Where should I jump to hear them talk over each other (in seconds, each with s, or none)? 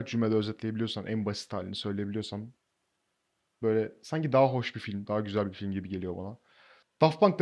none